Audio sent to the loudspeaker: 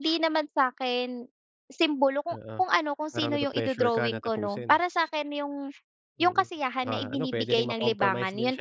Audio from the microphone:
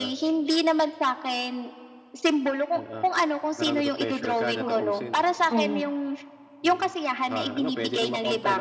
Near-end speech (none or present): present